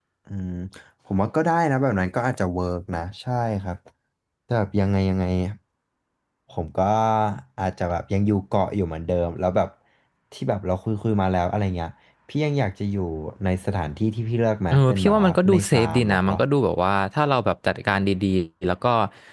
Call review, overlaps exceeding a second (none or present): present